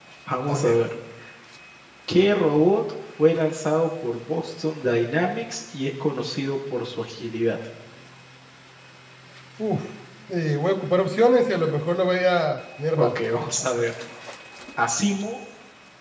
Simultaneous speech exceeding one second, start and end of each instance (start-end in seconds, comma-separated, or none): none